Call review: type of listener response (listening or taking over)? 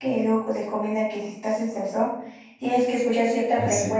listening